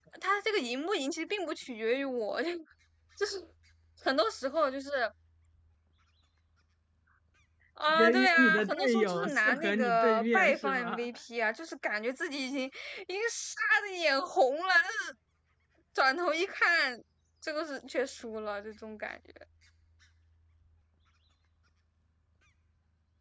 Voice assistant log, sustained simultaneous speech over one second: present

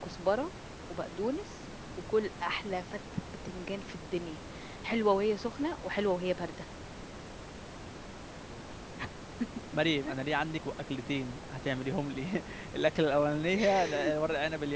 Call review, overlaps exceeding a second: none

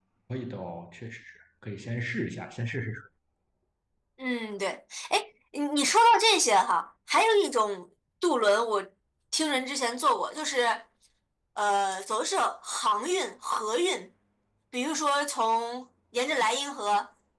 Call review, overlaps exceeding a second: none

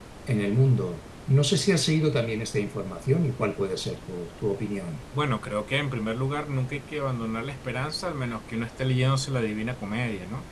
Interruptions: none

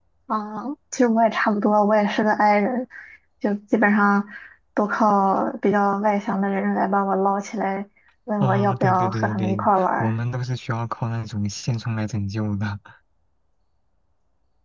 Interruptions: present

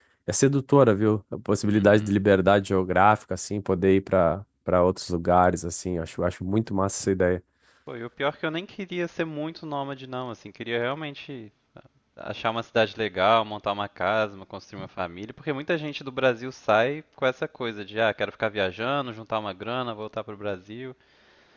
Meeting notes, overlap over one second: none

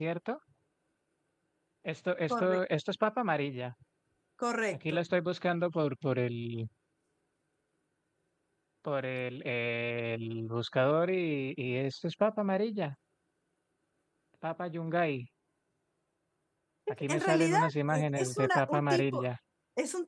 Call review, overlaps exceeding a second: present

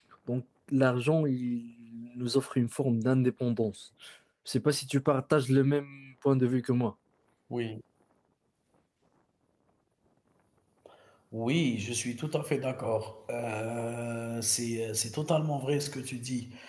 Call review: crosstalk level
none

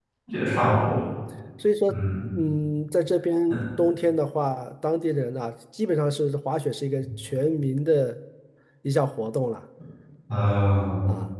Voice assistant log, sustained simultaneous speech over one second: none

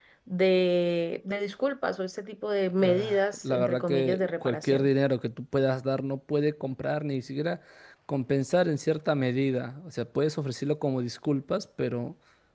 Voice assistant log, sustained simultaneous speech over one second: present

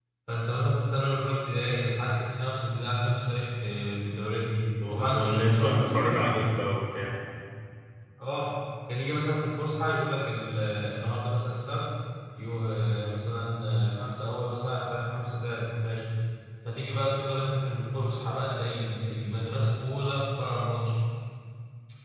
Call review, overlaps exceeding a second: present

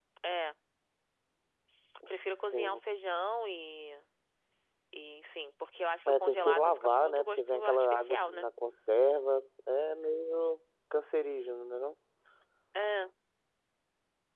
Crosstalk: present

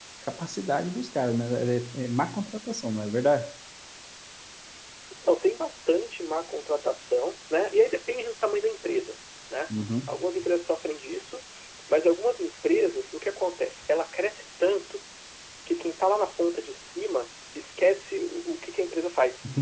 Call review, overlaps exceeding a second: none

